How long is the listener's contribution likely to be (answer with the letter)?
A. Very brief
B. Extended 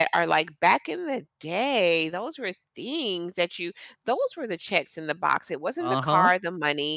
A